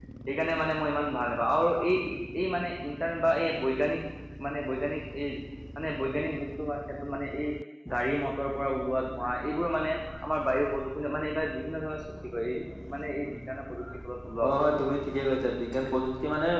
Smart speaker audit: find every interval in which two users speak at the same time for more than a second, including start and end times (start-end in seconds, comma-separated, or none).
none